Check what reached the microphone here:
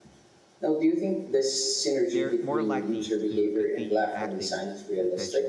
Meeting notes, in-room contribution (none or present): present